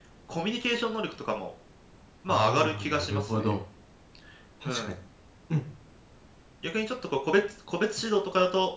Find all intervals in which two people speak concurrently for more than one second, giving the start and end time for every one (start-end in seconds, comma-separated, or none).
2.3-3.5